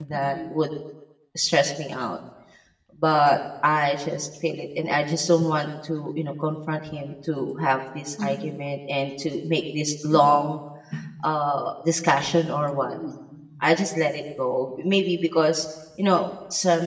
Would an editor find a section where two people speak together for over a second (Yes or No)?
No